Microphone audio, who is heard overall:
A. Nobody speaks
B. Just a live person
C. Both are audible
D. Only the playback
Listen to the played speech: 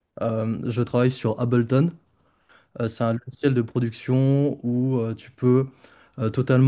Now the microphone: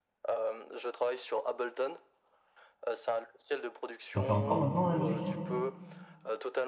C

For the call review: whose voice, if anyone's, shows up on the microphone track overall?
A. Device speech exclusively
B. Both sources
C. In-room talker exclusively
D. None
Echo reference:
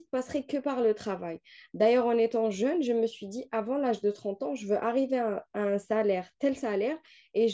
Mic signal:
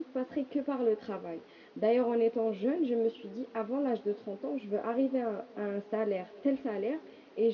A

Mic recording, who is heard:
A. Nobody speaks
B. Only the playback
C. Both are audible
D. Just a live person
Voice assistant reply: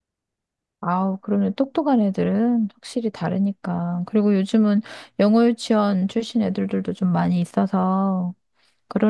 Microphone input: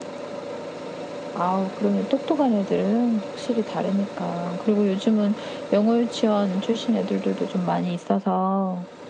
B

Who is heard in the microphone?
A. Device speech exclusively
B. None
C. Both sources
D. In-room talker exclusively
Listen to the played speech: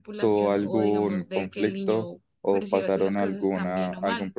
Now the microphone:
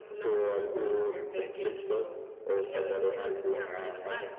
C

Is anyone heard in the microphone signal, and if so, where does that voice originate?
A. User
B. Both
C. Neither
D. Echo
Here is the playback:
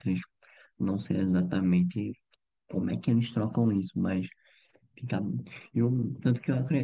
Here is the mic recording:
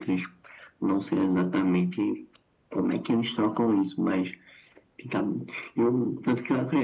D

